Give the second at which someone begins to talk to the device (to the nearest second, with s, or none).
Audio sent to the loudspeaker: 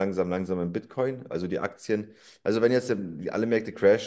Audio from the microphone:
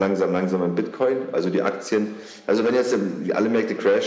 none